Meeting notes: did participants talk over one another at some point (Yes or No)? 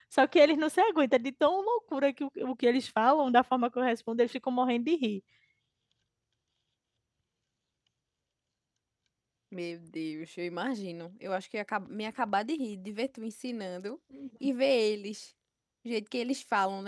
No